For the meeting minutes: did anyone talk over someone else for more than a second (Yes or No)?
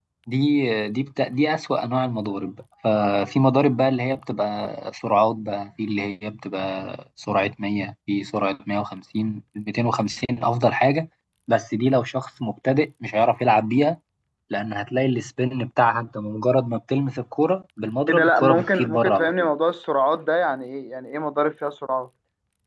Yes